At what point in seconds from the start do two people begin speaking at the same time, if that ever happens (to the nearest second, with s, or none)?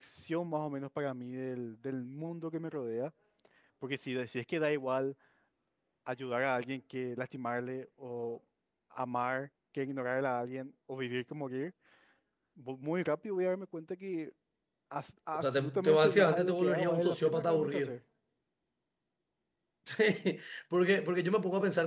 15 s